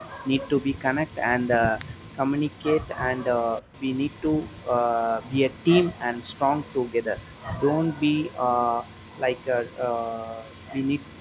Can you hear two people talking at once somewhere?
No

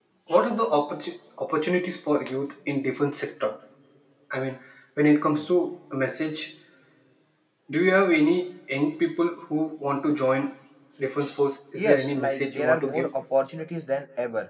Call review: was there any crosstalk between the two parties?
Yes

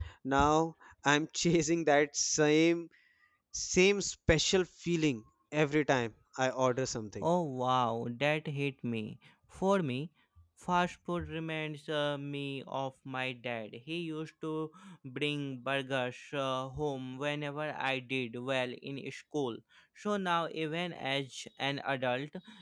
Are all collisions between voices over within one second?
Yes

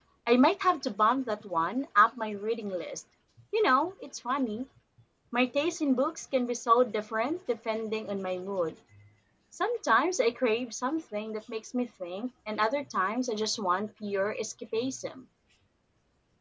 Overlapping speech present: No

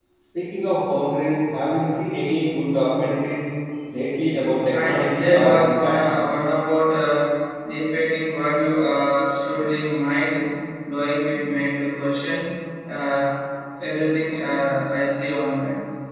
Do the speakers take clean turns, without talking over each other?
No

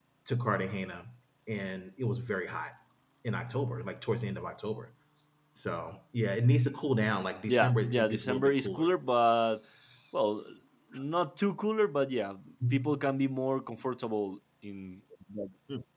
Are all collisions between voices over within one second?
No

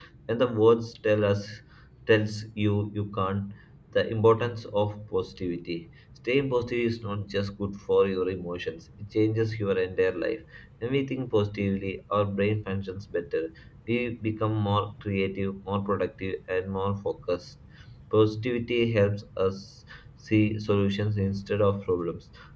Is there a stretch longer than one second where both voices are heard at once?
No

